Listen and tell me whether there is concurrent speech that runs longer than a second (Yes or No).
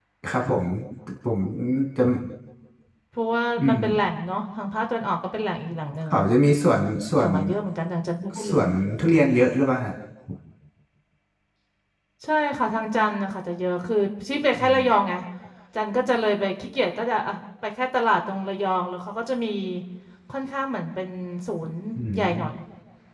No